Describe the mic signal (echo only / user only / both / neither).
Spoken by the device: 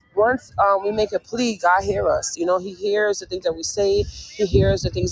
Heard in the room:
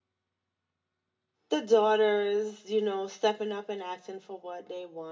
user only